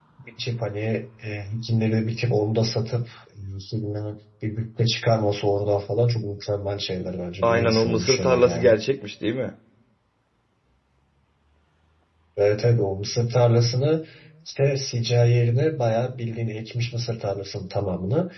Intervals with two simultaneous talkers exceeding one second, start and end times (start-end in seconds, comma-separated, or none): 7.4-8.7